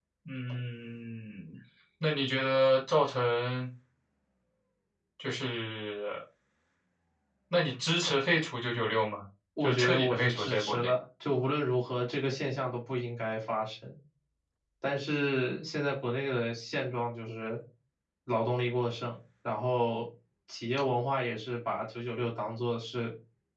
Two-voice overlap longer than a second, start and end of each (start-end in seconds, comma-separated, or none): 9.6-10.9